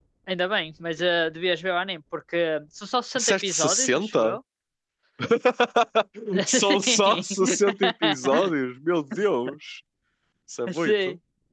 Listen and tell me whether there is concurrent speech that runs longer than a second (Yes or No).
Yes